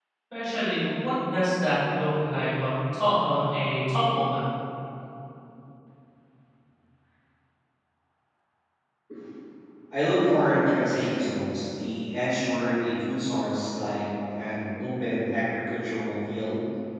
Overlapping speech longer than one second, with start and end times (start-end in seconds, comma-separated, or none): none